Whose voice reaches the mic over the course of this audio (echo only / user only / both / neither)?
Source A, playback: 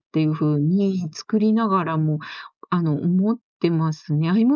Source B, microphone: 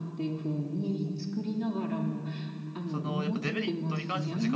both